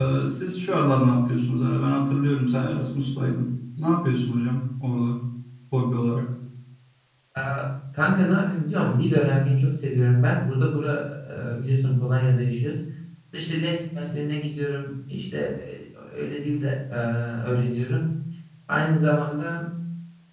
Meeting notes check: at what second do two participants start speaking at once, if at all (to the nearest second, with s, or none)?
none